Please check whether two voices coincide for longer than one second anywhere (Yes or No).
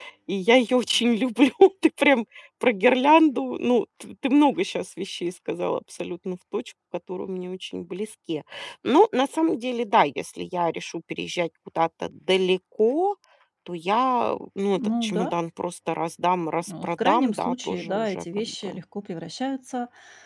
Yes